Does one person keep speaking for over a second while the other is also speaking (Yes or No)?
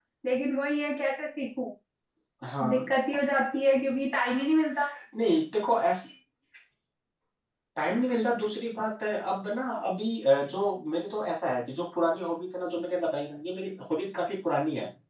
No